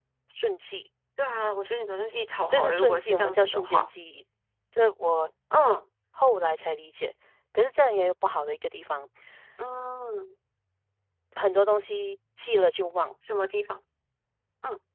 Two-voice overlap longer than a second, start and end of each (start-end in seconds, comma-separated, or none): 2.5-3.9